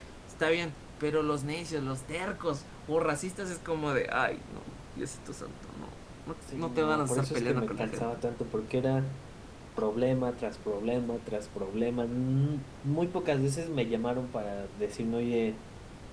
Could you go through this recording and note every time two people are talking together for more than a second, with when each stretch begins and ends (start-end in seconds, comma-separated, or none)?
6.5-8.2